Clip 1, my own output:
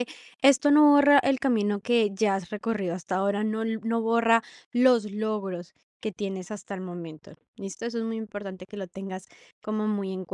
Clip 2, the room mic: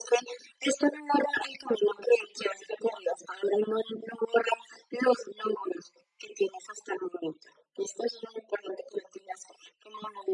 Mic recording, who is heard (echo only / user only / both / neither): echo only